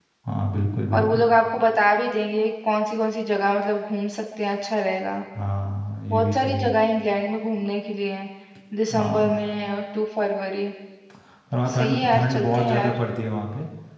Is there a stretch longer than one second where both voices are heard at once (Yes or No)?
Yes